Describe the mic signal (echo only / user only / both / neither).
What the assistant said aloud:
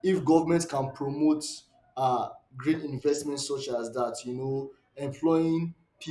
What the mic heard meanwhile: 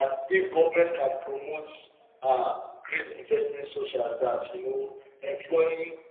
echo only